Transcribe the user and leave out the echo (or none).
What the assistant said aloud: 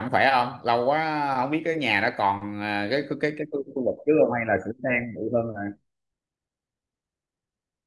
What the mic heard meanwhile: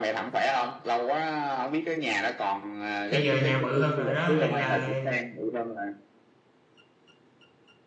bây giờ nhà bự hơn rồi đó nên là